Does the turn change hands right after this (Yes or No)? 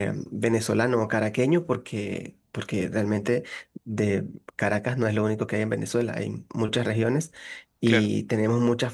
No